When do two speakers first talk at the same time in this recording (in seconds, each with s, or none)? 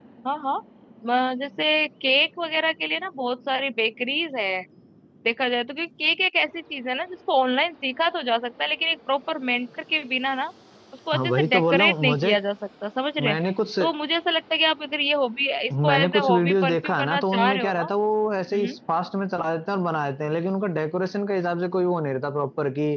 11.1 s